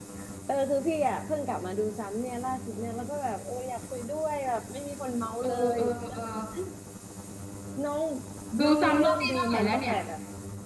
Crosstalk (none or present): present